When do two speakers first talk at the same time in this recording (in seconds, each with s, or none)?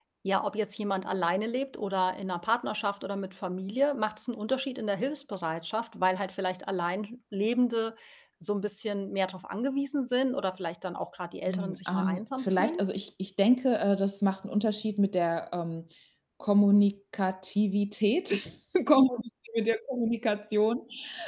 11.5 s